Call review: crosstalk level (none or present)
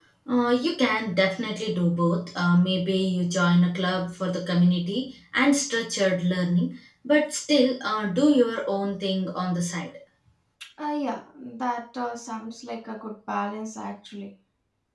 none